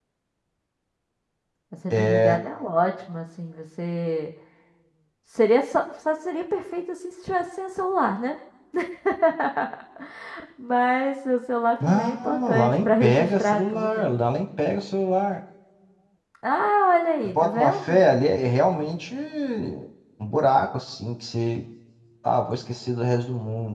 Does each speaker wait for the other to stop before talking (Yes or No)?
No